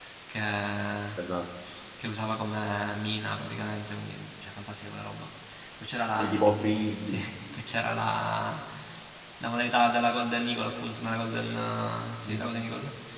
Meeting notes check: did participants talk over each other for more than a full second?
No

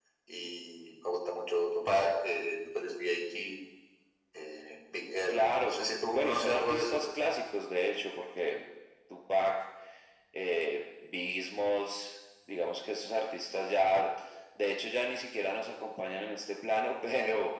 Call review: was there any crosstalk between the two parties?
Yes, from 5.3 s

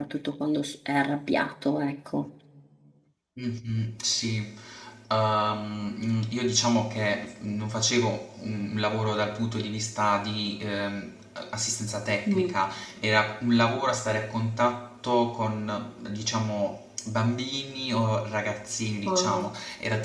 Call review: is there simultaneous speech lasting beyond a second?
No

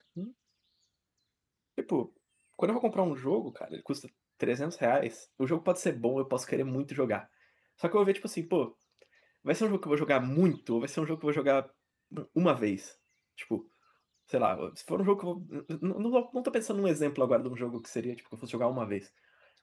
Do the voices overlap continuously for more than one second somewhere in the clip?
No

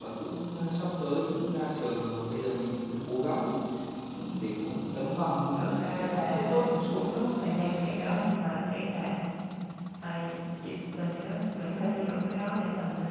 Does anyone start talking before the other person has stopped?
Yes, from 5.5 s

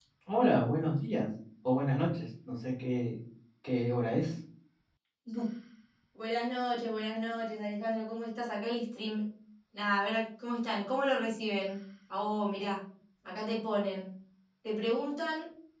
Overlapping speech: No

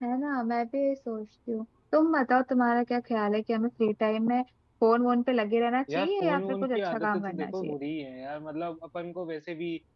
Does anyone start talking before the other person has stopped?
Yes, from 5.9 s

